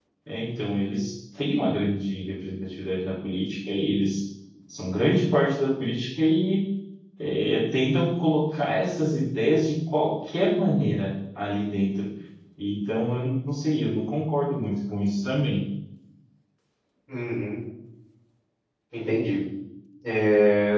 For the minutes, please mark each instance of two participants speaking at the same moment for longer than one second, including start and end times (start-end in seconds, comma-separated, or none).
none